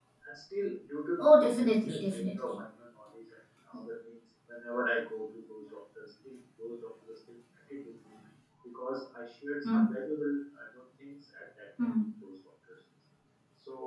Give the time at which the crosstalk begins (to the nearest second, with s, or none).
1 s